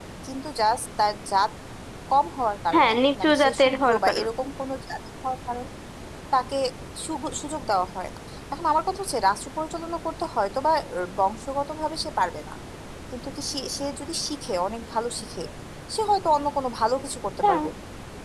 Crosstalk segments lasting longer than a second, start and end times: 2.7-4.3

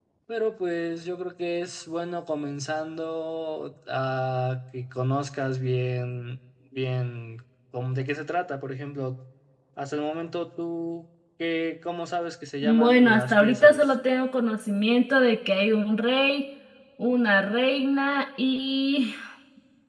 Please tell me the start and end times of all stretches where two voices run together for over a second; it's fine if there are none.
12.6-13.8

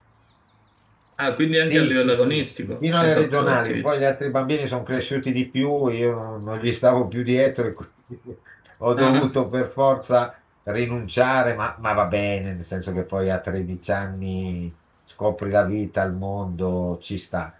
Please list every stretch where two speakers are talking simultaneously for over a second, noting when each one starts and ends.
1.7-3.9

